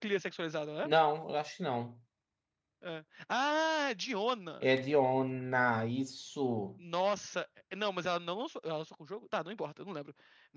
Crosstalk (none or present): none